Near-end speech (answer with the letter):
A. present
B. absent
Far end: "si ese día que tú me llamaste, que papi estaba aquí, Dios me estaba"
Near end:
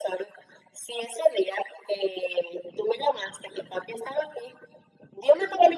B